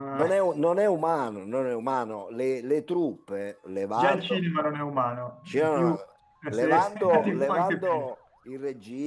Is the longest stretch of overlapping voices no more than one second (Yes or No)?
No